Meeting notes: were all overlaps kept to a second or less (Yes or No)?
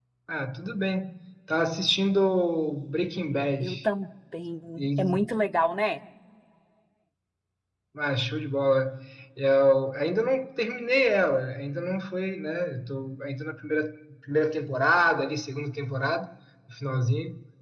Yes